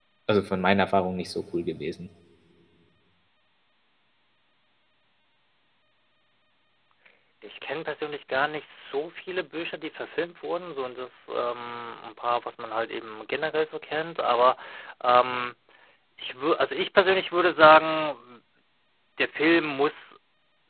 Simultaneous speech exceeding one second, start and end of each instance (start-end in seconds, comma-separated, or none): none